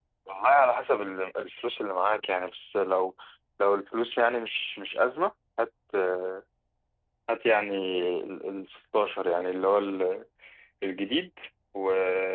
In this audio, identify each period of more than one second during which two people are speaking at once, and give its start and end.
none

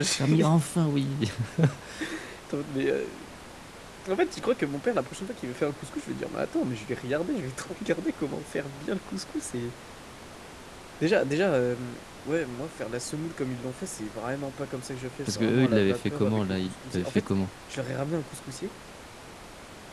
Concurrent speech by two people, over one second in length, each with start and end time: 15.3-17.3

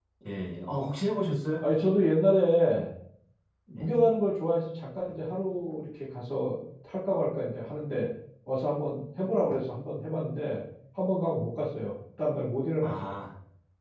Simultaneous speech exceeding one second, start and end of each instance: none

